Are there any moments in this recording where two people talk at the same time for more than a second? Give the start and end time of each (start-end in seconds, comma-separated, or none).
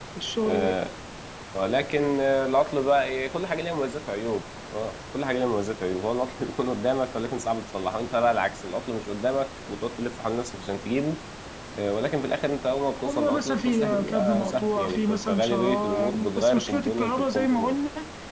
13.0-17.8